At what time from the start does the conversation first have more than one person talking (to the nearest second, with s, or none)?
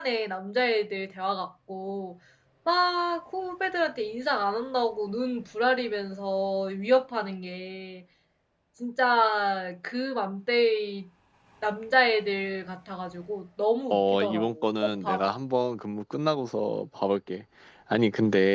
14 s